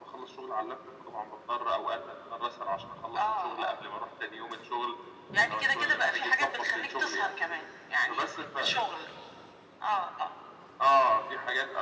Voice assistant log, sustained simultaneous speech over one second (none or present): present